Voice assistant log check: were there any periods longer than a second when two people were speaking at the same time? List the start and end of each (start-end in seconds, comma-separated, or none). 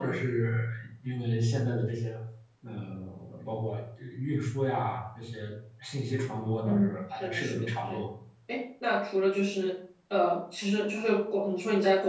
6.6-8.0